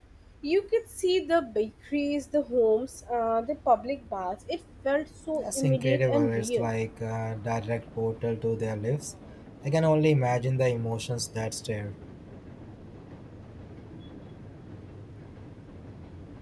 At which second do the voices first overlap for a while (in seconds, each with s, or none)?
5.3 s